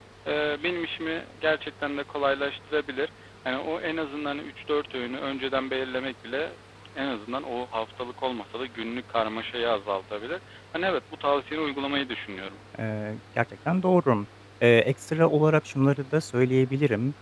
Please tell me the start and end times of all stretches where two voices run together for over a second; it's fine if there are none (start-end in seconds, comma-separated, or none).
none